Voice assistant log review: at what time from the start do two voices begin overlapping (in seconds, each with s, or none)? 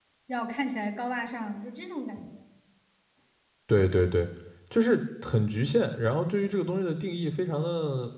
none